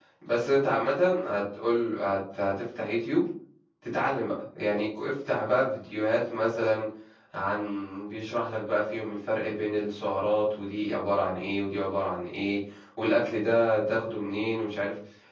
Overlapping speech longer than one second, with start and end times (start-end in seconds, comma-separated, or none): none